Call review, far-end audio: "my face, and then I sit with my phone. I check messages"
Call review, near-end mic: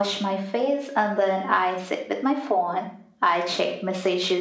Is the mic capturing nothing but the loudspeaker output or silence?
Yes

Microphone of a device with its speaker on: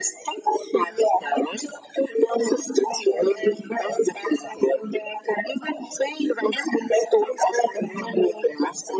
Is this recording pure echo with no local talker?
Yes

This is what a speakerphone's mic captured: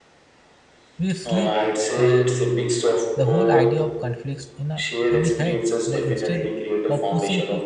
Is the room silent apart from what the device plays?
No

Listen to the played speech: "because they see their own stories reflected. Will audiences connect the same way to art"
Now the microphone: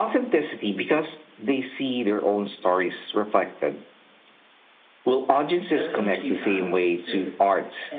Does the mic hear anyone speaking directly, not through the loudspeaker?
Yes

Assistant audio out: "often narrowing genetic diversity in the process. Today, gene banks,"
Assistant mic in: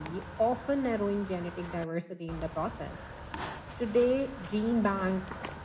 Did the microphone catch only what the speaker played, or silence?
Yes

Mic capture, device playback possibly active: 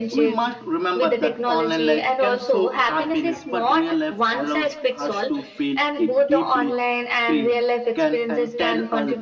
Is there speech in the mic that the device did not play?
Yes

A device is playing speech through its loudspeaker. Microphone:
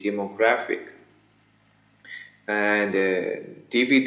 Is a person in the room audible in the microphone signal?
No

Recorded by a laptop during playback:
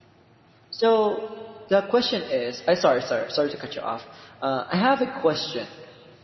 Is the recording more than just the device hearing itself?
Yes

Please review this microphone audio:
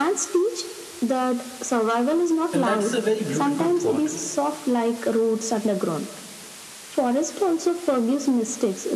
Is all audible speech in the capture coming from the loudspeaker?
No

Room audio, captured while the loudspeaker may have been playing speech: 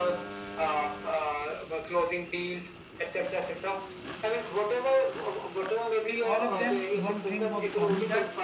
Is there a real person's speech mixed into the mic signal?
Yes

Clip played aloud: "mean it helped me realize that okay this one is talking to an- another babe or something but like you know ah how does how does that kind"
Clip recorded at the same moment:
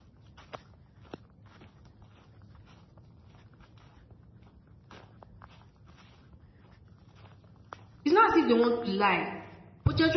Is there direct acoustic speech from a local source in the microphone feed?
Yes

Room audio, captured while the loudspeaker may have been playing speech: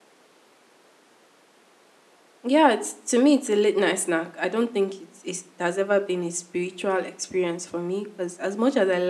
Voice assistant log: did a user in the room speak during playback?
Yes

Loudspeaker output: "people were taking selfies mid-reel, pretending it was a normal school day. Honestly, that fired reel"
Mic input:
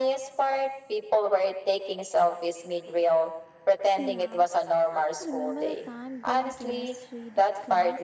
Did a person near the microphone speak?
Yes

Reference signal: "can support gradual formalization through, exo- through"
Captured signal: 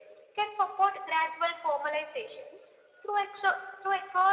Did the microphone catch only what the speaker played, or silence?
Yes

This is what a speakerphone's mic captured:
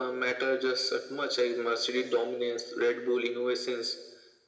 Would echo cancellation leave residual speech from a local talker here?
No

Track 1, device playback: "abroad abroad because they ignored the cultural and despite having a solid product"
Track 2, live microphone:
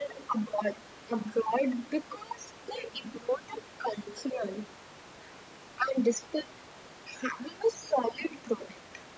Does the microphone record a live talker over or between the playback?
No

